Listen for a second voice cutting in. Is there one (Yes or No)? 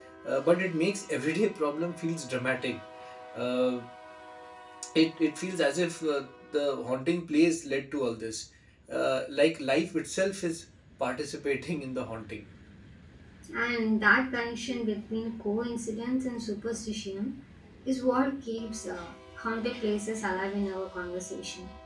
No